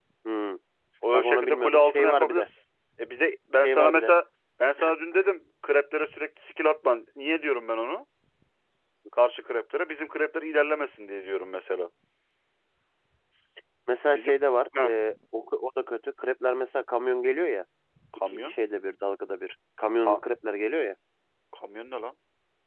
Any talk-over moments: Yes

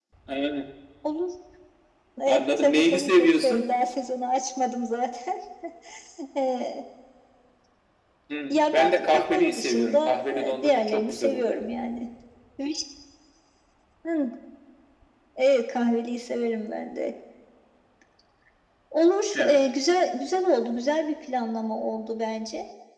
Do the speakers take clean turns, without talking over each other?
No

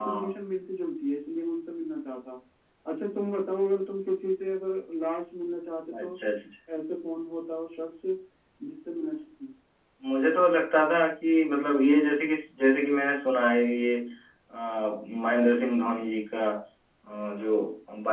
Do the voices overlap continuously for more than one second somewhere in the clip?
No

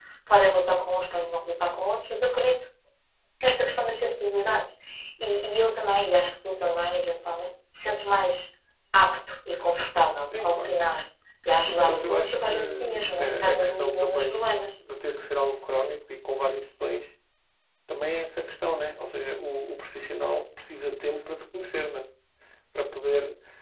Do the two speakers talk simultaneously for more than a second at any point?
Yes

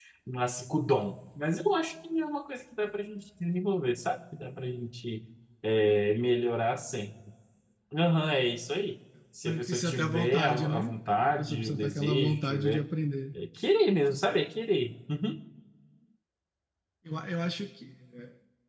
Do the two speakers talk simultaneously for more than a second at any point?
Yes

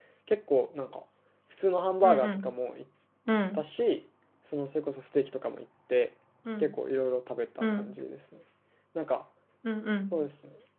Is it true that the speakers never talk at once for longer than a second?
Yes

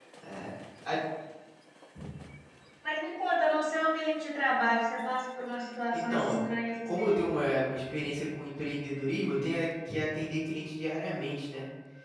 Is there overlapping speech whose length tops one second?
No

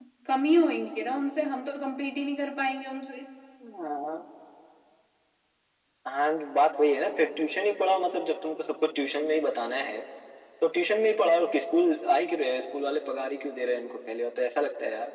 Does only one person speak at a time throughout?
Yes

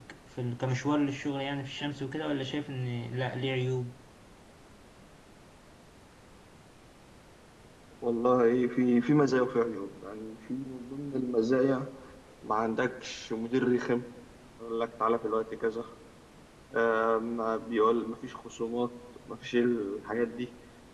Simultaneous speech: No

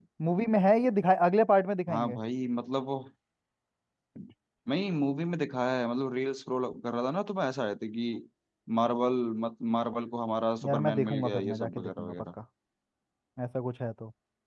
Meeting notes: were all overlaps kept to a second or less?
No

